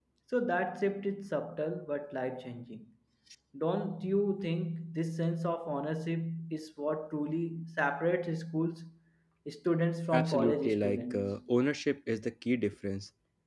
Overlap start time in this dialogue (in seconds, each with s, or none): 10.1 s